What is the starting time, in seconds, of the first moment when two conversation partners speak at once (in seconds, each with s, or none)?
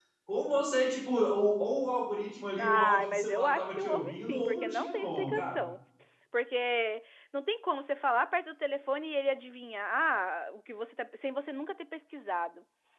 2.6 s